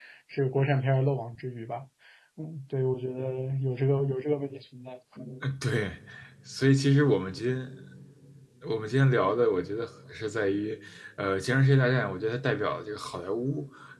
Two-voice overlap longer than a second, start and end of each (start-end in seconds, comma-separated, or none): none